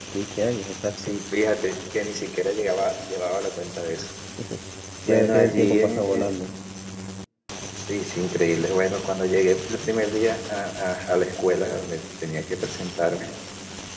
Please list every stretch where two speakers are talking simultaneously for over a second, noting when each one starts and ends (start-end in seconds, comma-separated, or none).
5.1-6.3